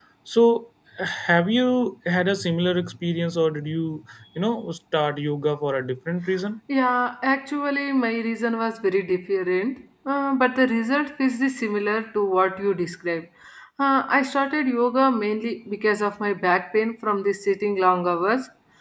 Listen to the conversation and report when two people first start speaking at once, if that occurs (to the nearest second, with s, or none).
none